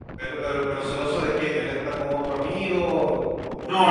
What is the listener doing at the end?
taking over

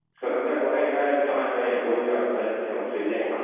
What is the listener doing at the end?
listening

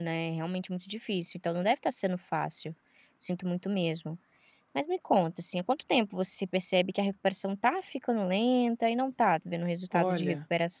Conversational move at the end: taking over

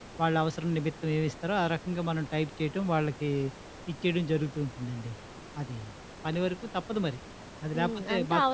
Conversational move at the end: taking over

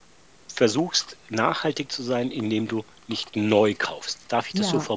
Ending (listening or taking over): taking over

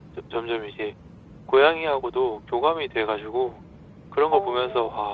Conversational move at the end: listening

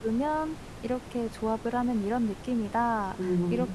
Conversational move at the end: listening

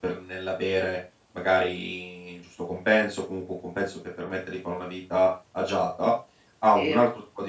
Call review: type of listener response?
listening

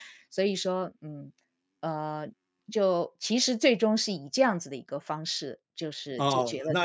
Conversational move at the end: taking over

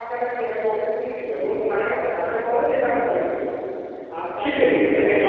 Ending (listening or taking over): taking over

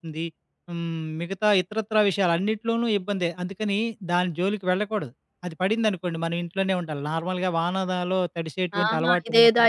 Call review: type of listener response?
taking over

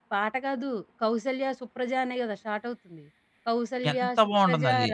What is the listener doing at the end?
listening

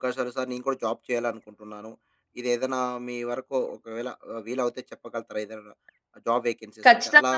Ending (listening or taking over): taking over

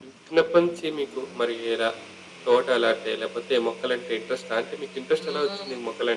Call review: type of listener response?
taking over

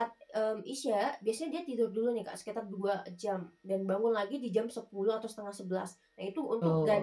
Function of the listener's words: listening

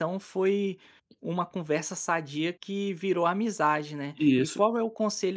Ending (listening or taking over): listening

